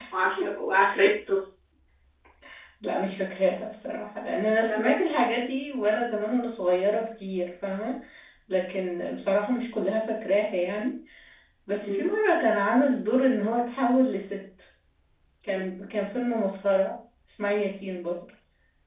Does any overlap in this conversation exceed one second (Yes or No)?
No